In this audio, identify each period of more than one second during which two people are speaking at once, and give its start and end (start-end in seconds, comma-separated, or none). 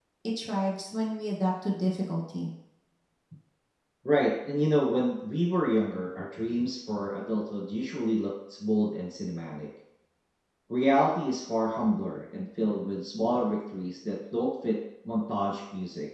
none